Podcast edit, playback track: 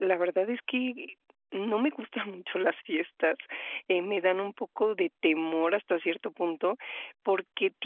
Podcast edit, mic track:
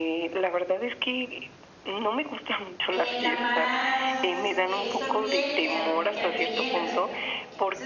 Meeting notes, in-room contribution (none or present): present